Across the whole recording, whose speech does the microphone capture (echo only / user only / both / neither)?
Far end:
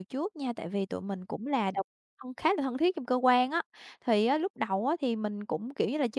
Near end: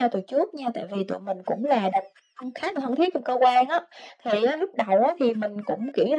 echo only